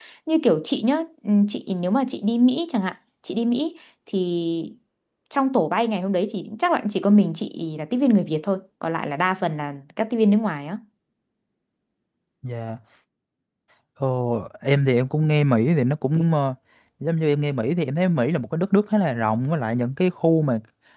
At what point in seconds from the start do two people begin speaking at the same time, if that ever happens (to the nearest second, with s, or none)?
none